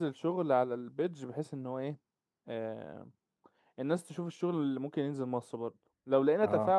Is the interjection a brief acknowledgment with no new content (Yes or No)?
Yes